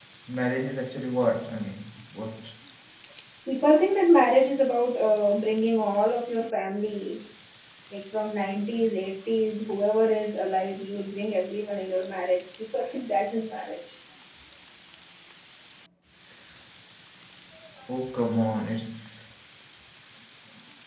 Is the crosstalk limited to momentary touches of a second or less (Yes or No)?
Yes